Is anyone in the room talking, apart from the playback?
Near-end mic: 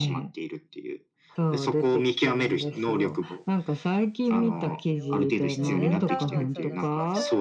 Yes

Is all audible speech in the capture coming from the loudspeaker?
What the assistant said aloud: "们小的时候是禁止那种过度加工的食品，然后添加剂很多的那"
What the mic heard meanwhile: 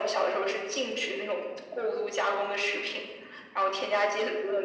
Yes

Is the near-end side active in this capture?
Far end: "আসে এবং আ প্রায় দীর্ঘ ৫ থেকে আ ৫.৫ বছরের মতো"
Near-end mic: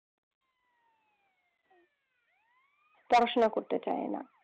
Yes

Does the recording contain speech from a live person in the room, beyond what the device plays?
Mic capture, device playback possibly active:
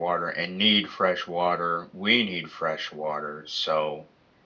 Yes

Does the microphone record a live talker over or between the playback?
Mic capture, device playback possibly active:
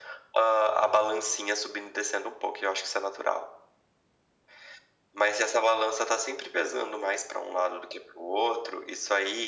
No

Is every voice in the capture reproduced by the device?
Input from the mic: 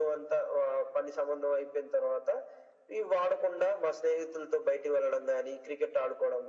Yes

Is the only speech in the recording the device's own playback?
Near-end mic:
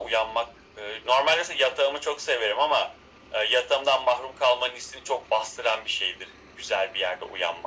Yes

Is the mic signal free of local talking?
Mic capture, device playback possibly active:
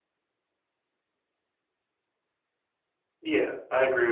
No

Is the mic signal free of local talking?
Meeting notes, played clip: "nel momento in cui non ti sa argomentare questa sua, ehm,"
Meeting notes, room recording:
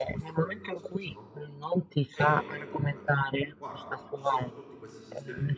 No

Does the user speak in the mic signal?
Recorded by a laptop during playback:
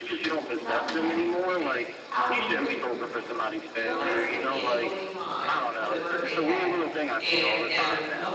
Yes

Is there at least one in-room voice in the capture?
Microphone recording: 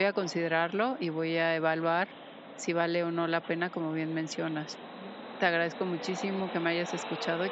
Yes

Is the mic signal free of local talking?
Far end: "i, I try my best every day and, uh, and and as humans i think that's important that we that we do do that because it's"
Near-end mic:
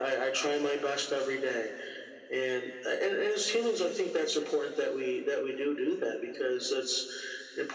Yes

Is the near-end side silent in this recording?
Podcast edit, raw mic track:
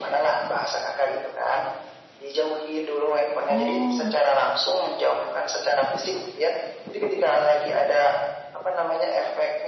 No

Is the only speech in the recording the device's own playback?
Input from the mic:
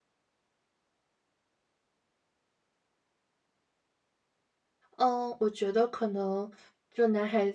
No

